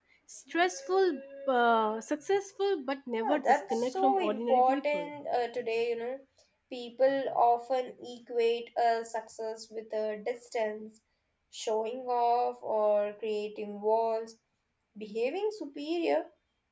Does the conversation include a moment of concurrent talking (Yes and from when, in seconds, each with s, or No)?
Yes, from 3.2 s